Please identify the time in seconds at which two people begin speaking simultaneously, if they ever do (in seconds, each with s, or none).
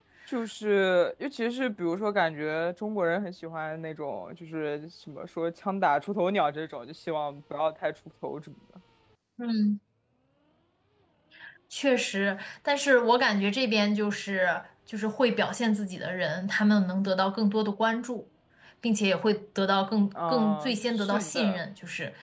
20.2 s